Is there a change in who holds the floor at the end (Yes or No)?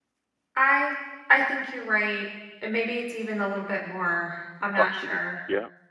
Yes